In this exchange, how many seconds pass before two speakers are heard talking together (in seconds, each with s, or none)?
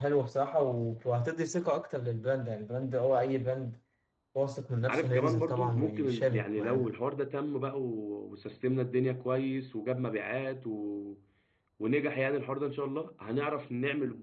4.9 s